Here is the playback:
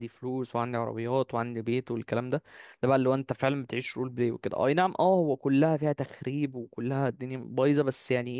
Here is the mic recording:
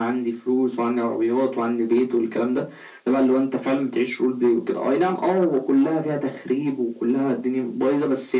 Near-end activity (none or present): none